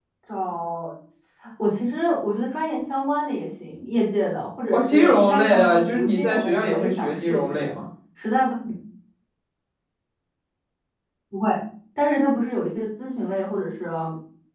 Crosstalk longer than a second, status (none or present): present